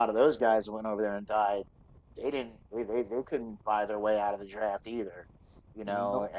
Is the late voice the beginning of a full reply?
No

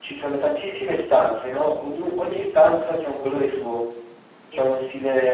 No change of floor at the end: Yes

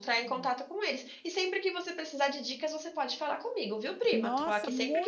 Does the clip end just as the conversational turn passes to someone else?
Yes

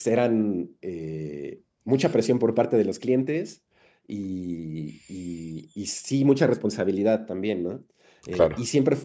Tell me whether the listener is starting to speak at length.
No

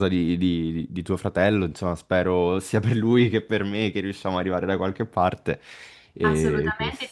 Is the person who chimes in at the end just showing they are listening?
No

